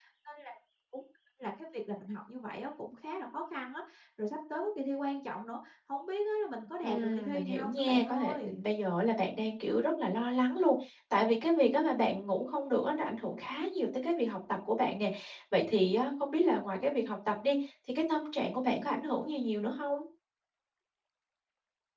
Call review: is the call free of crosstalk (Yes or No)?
No